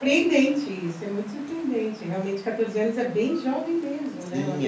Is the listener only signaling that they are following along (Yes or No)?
No